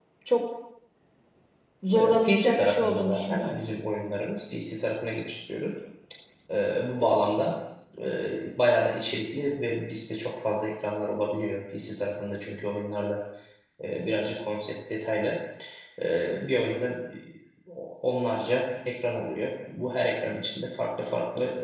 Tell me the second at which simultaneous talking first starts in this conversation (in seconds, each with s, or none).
1.9 s